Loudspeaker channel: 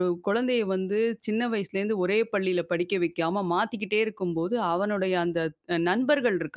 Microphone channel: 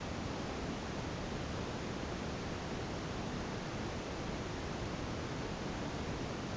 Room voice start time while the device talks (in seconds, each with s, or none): none